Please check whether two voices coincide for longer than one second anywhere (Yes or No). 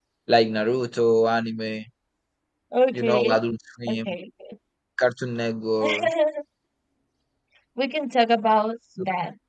No